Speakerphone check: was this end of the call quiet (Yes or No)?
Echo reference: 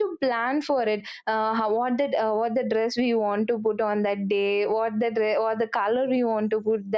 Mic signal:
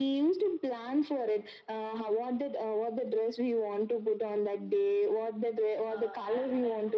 No